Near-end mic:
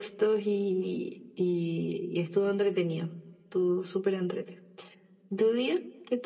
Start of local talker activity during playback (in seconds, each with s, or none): none